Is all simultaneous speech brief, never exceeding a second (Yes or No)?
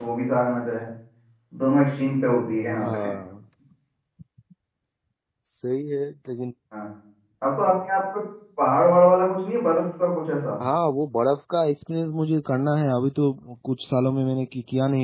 Yes